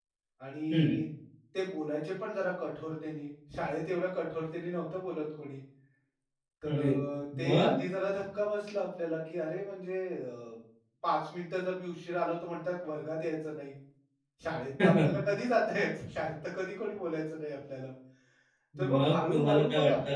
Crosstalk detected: Yes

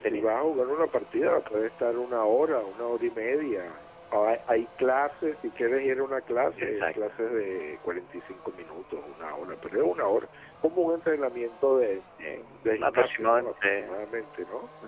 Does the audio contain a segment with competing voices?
Yes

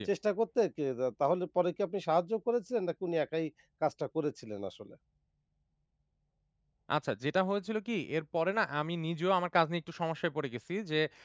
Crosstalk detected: No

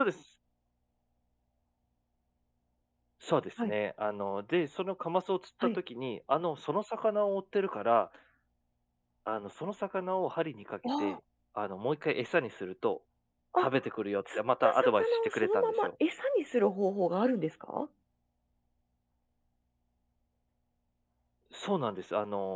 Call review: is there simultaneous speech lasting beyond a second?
Yes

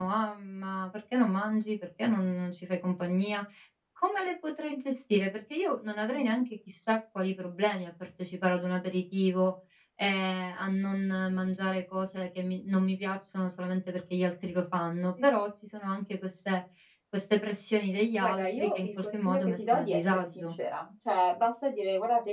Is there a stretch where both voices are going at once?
Yes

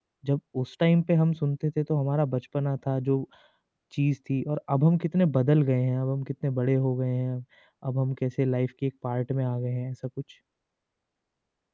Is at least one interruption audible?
No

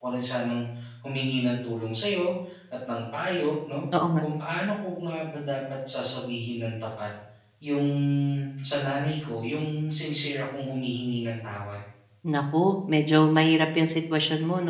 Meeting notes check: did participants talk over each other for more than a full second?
No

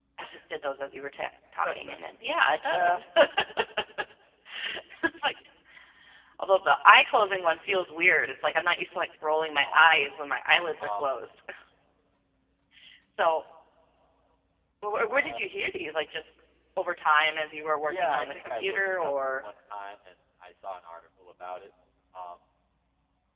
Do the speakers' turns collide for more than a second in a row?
Yes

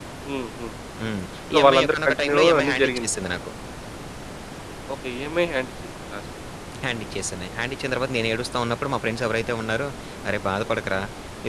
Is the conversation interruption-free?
No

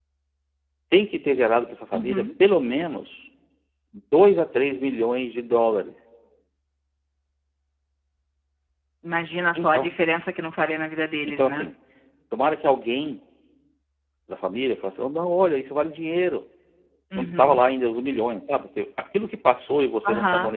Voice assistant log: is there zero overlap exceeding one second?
Yes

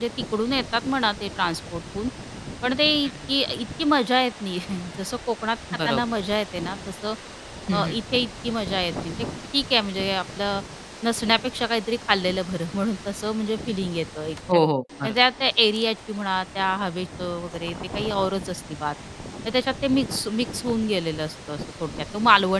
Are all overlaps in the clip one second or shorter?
Yes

